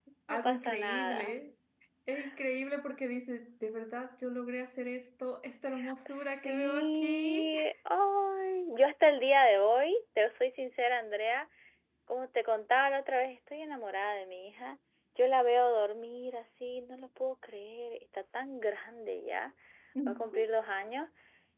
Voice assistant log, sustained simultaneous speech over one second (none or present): present